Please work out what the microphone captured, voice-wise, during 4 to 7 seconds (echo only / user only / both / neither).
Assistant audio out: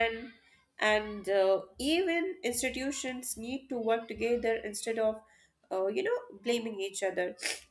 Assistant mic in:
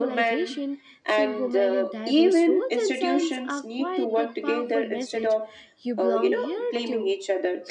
both